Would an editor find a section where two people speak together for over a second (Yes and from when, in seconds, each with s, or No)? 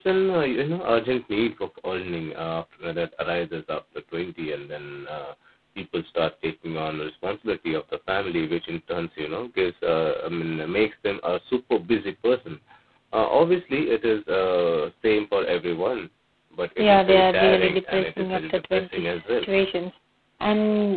Yes, from 16.8 s